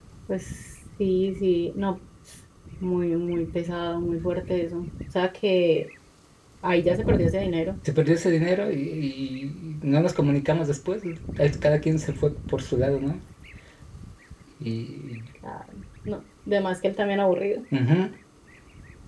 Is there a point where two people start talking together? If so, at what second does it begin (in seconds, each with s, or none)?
none